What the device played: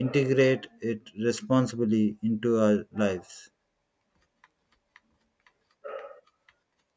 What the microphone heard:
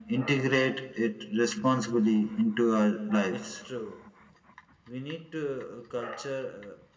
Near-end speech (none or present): present